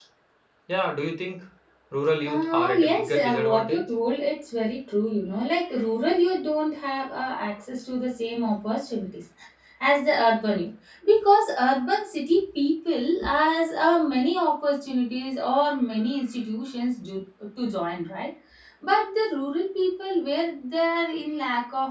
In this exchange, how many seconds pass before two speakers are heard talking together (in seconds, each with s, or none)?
2.3 s